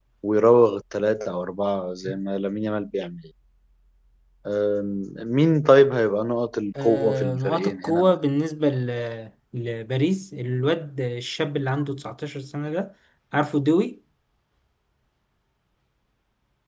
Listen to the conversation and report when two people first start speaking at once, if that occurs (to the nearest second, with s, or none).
7 s